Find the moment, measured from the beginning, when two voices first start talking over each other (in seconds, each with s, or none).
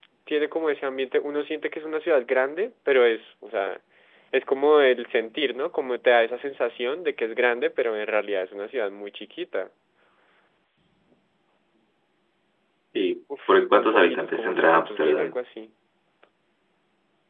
13.5 s